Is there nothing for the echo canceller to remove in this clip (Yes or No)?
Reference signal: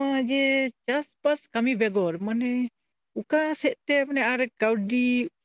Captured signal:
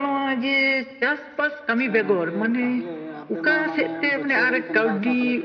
No